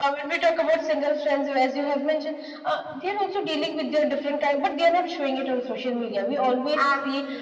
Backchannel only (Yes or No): Yes